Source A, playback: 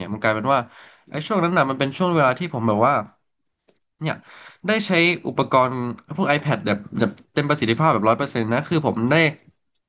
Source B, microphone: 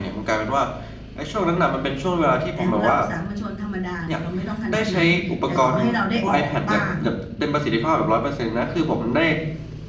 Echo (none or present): present